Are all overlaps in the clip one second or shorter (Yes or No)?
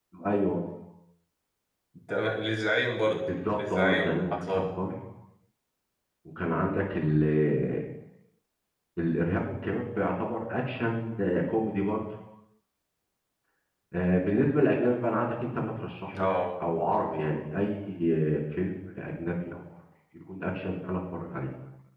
No